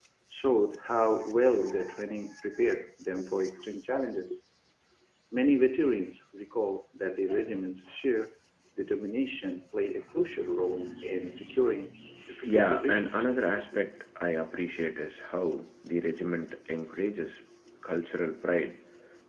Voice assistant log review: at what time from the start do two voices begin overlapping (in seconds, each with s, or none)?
12.4 s